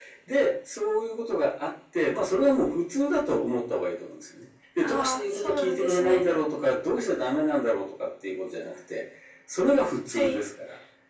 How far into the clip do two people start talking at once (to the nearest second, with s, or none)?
5 s